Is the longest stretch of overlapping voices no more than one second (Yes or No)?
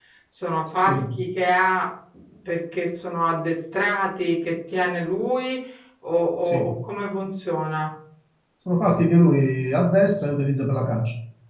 Yes